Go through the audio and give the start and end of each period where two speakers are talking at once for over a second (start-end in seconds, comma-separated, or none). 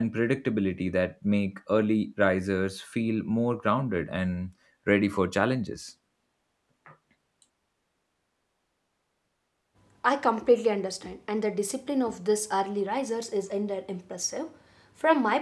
none